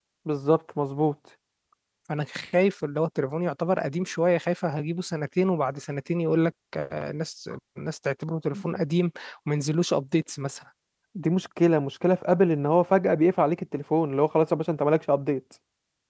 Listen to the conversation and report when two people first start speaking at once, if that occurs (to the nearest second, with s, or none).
none